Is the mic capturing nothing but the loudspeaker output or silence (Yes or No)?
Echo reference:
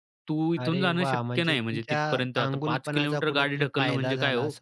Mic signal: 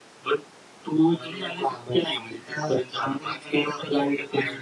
Yes